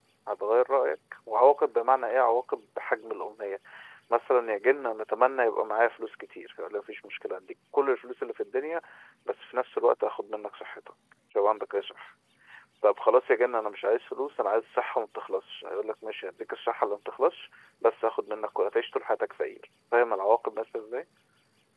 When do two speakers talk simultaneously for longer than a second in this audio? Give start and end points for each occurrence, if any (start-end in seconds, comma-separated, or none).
none